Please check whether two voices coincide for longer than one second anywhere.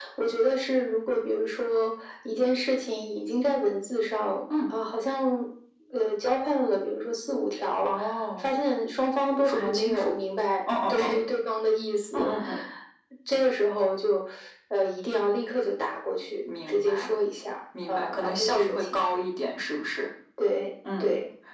Yes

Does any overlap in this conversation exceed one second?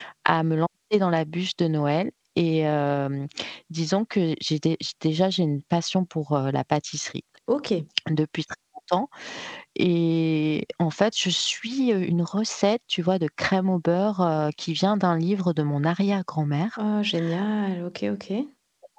No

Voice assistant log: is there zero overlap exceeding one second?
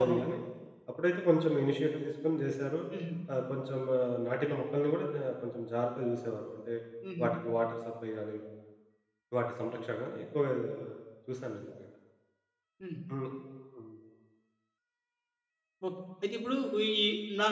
Yes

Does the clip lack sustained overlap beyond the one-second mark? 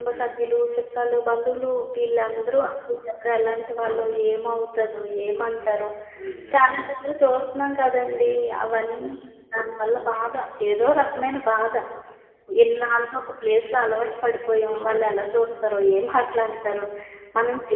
Yes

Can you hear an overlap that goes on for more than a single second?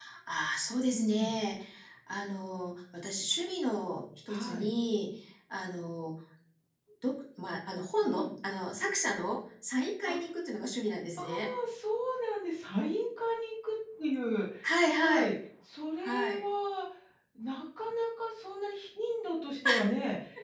No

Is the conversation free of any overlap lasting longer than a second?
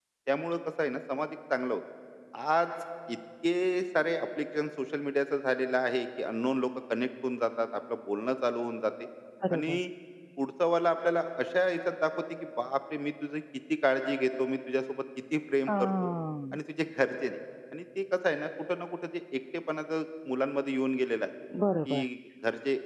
Yes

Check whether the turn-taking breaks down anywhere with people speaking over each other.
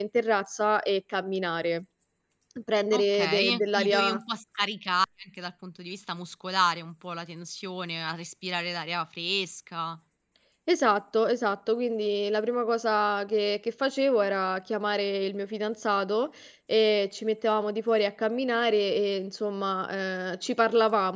Yes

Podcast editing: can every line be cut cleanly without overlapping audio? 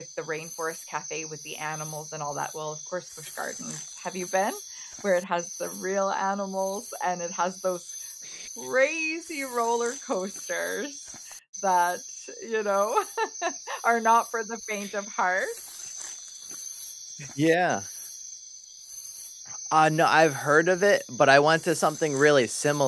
Yes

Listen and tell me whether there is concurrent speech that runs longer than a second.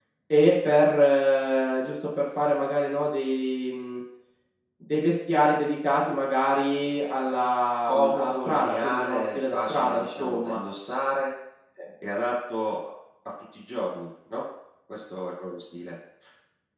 Yes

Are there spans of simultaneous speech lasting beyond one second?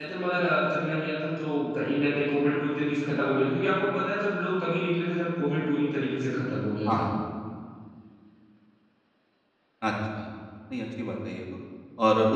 No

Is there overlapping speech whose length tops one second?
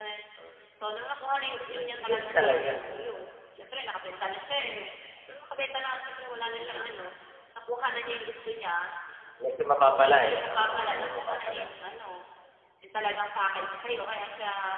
Yes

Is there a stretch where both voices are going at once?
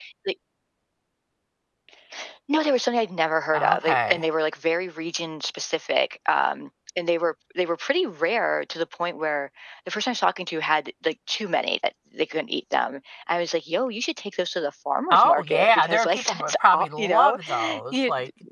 Yes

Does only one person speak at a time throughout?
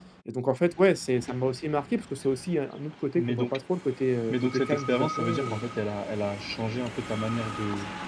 No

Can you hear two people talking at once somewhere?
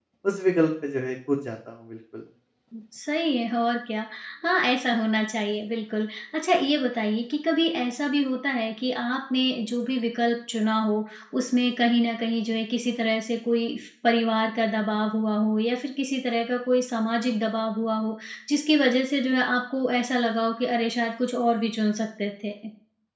No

